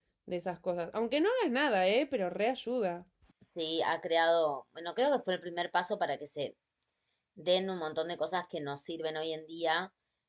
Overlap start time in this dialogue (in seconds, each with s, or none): none